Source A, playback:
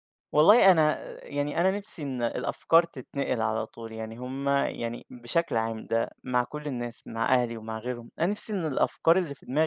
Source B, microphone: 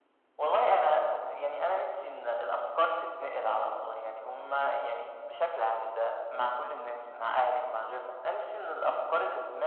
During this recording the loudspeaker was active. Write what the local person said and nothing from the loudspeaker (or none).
none